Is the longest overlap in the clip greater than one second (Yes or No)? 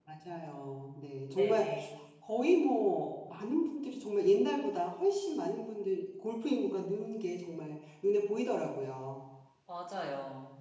No